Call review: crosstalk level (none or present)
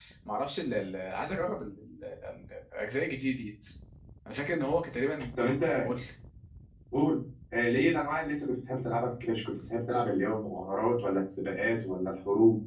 none